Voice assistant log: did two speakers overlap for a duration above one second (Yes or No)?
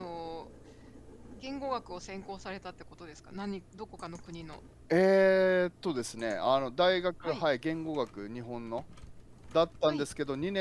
No